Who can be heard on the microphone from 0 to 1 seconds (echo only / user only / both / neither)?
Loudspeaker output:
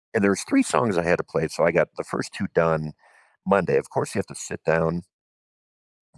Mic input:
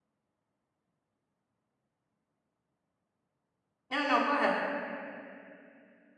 neither